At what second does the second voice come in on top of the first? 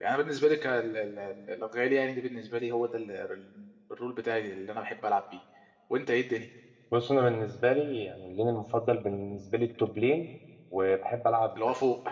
none

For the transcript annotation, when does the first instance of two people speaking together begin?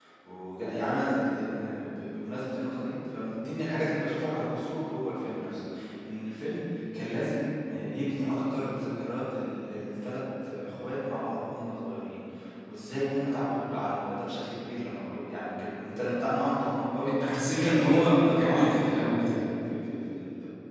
17.5 s

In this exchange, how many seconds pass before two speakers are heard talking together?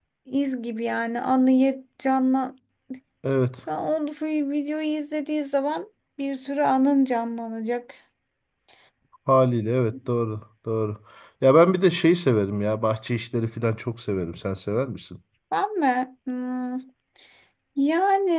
none

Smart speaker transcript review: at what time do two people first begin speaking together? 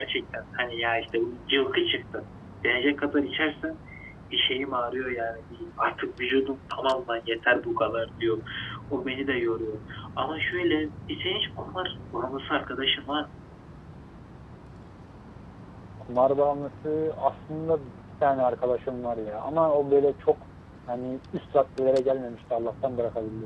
none

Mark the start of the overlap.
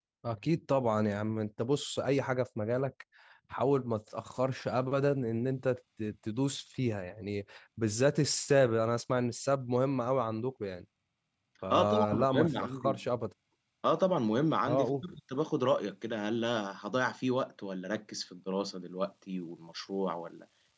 11.7 s

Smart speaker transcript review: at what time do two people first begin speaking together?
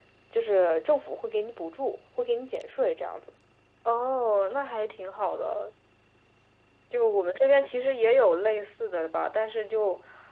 none

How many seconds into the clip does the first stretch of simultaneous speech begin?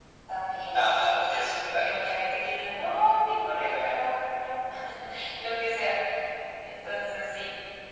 0.7 s

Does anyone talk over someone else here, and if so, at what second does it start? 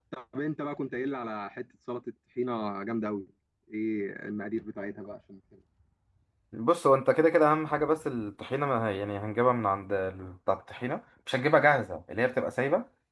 none

